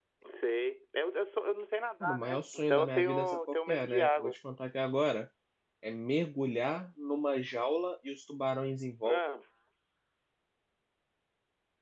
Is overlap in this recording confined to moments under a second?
No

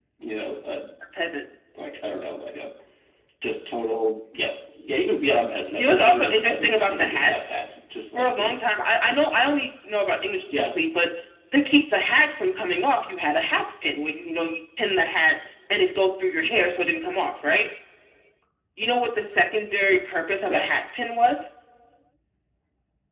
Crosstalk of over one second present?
Yes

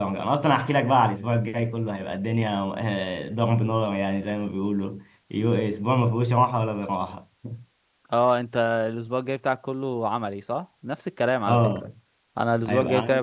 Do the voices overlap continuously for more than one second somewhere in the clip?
No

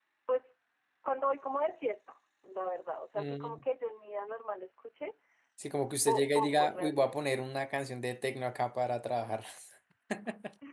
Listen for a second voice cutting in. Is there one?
Yes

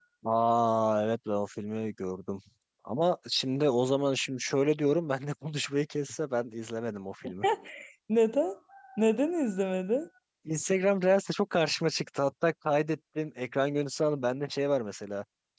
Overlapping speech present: No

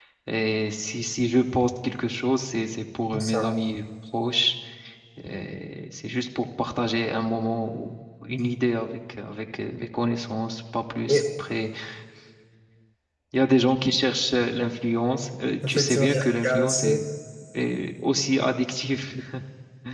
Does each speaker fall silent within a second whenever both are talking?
No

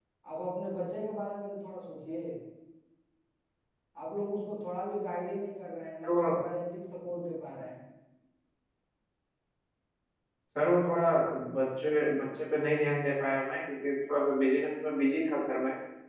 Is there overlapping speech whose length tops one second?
No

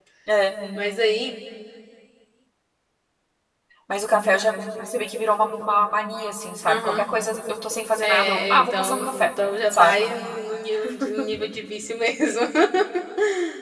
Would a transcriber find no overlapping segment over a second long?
No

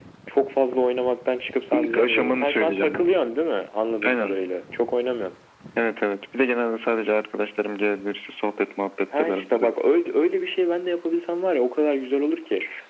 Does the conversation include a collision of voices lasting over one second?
Yes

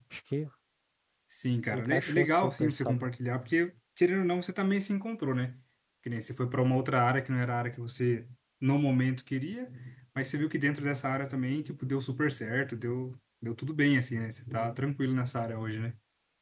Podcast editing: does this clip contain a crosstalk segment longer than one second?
Yes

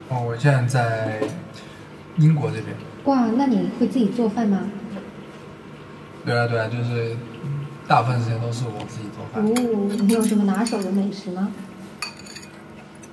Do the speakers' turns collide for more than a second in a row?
No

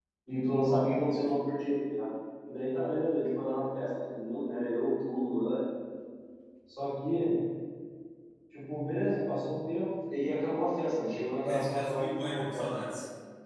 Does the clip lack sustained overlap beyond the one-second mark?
No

